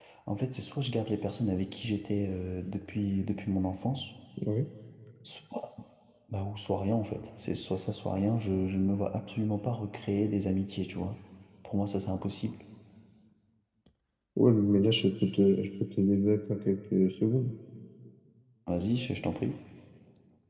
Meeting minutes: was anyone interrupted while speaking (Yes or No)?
No